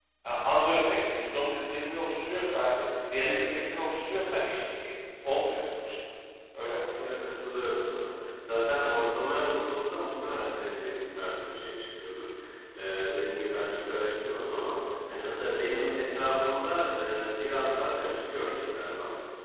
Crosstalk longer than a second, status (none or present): none